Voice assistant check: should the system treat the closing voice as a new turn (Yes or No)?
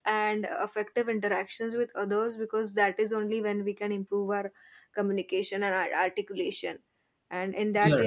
No